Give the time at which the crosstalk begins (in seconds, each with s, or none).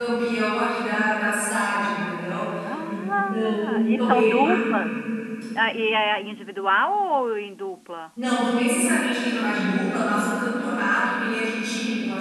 2.6 s